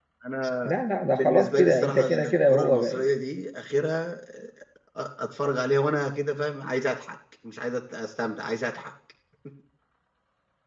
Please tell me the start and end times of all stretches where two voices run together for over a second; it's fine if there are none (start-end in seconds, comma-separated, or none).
1.1-3.0